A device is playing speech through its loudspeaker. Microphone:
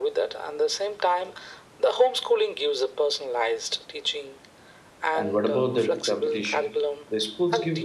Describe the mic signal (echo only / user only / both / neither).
both